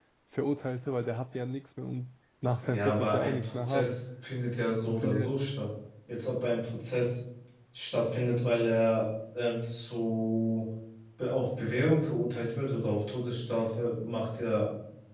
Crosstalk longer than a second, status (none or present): present